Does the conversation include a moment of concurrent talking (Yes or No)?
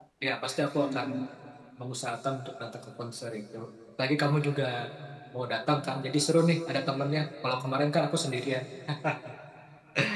No